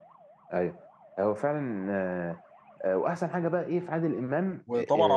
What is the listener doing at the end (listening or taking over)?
taking over